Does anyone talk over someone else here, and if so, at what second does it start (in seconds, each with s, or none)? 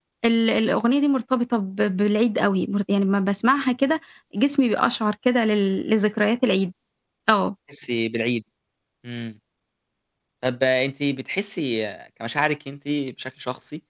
none